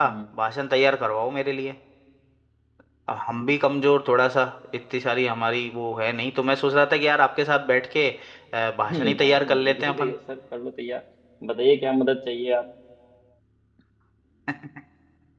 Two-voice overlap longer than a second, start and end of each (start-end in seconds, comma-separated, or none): 8.9-10.1